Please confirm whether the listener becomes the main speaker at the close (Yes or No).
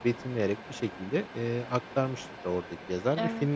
No